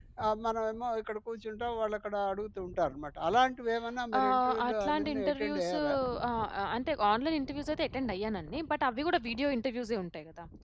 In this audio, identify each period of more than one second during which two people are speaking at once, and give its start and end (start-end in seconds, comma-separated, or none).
4.2-5.7